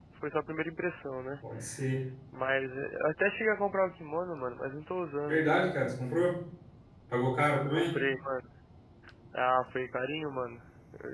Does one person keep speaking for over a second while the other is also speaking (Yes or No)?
No